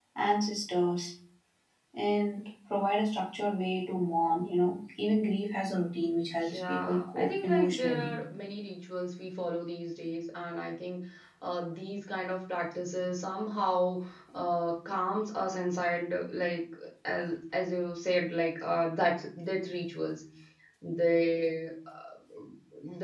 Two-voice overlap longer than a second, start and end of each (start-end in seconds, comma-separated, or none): 6.5-8.1